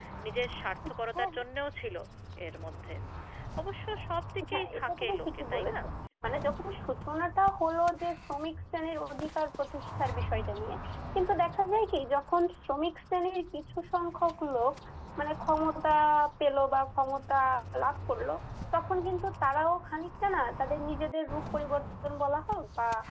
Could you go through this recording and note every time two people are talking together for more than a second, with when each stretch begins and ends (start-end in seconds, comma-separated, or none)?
4.5-5.7